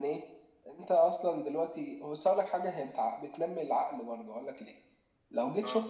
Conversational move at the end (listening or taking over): listening